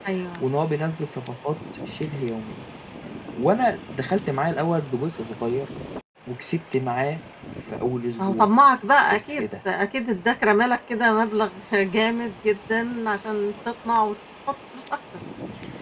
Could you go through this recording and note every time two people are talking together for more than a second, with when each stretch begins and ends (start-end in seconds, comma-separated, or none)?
none